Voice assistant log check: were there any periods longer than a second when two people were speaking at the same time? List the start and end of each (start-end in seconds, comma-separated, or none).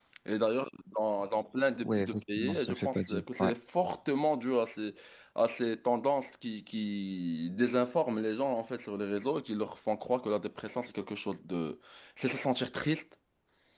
1.8-3.5